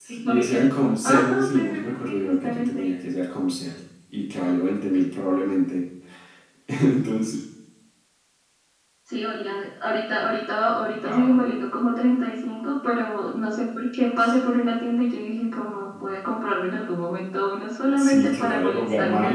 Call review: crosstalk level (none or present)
present